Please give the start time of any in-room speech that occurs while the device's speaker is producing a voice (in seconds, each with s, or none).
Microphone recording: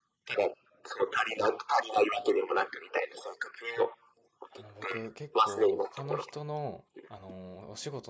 4.5 s